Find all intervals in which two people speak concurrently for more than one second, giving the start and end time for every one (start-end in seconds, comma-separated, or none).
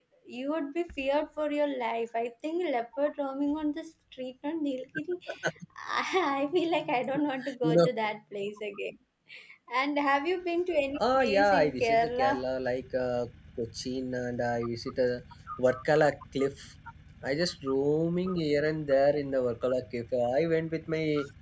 11.0-12.4